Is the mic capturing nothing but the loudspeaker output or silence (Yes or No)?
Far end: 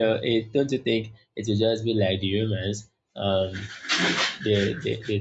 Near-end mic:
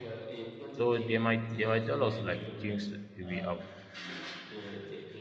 No